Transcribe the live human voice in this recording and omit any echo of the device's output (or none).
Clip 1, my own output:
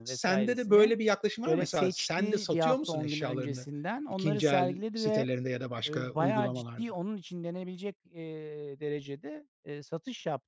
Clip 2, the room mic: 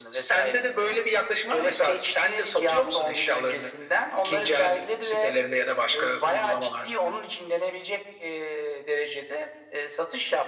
none